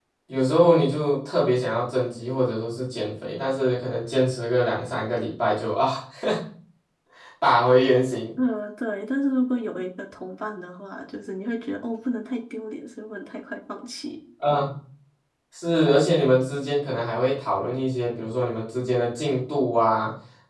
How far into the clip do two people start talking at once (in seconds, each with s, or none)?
none